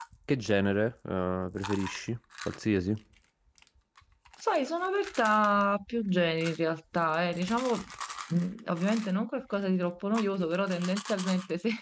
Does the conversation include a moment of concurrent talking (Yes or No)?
No